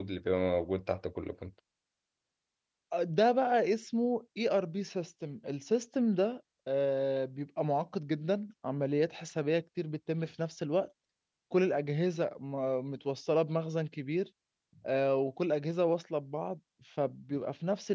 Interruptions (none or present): none